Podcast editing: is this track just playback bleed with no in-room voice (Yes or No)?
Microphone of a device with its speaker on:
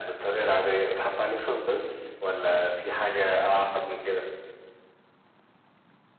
Yes